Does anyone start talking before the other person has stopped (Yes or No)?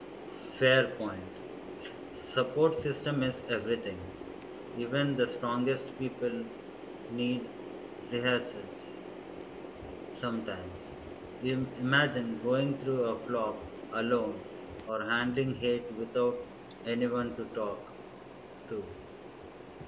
No